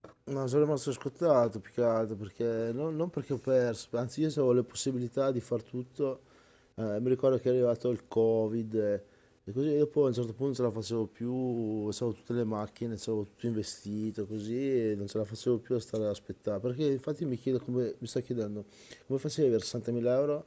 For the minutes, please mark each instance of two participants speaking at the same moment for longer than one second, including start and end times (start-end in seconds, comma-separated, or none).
none